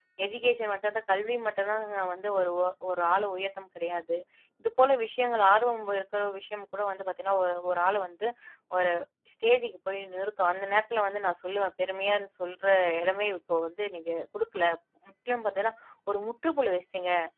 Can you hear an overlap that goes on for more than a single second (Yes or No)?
No